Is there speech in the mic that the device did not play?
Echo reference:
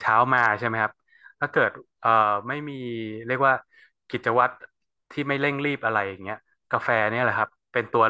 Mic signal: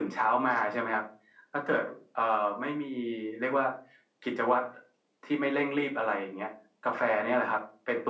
No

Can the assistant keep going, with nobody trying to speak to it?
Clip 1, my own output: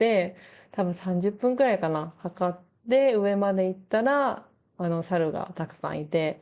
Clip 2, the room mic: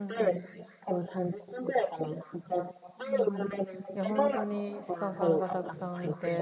No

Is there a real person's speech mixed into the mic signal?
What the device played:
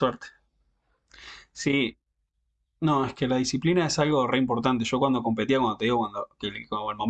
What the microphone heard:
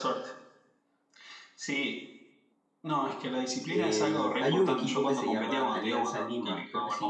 Yes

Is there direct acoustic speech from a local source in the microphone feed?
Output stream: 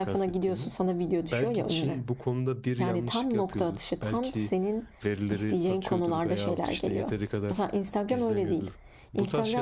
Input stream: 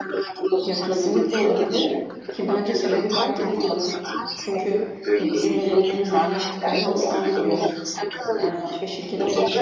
Yes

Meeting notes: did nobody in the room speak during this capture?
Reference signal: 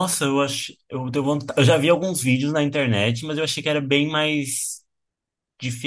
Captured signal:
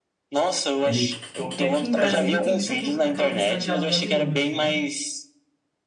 No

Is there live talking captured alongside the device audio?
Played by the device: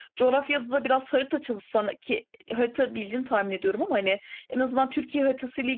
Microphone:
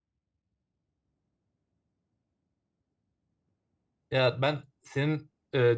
Yes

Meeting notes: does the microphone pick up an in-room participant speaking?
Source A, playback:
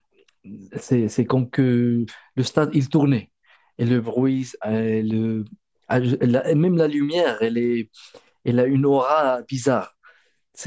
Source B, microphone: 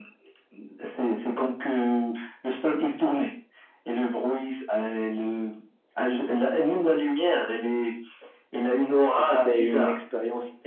Yes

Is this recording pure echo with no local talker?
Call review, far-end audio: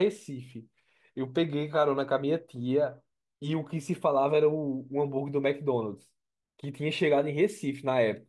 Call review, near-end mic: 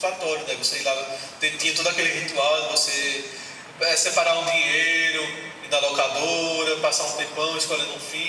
No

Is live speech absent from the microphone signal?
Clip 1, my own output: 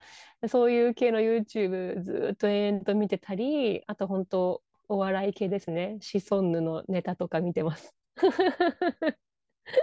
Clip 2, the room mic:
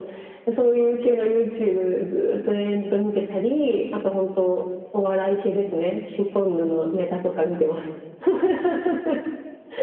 Yes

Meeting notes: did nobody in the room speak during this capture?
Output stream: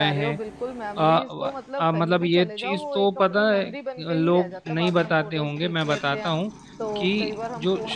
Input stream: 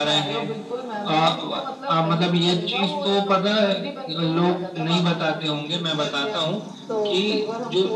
Yes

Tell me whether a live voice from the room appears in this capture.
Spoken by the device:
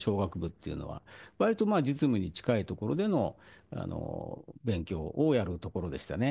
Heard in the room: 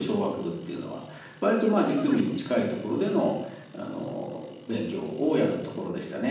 Yes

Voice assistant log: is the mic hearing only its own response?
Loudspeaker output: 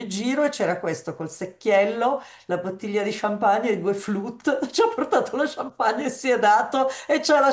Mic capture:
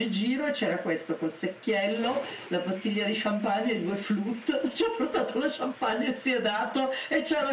Yes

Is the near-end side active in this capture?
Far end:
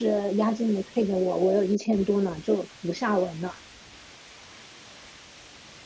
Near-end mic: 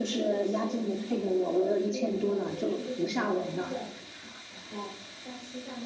Yes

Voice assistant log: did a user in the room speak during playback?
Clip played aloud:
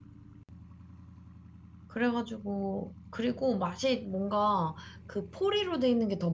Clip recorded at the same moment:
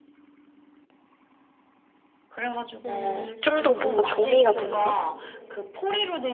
Yes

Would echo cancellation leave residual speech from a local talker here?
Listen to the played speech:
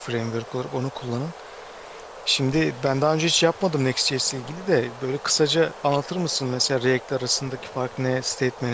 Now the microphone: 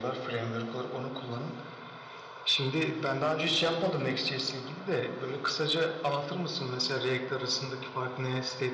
No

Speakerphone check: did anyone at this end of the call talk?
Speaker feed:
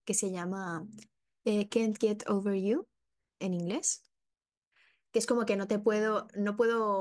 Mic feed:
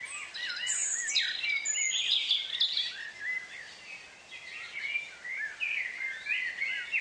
No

